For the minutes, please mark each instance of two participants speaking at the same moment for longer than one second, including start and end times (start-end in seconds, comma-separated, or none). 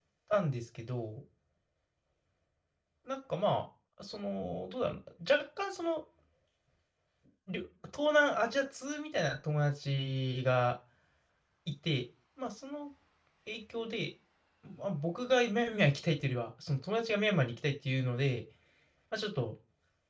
none